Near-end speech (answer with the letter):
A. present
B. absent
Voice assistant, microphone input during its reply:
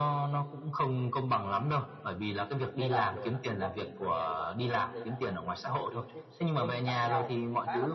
A